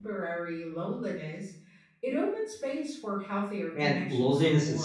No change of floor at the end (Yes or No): No